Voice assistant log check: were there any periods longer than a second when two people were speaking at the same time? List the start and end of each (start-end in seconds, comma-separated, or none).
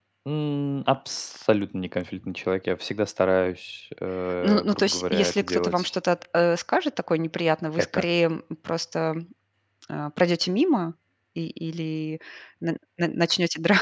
4.4-5.9